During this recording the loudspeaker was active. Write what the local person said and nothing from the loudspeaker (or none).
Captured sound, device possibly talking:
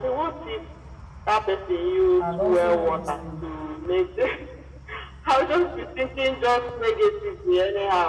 And also this thing,